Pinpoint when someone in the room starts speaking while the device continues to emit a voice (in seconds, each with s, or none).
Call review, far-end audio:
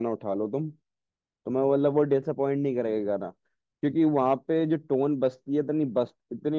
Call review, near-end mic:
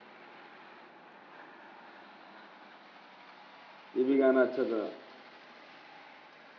4.0 s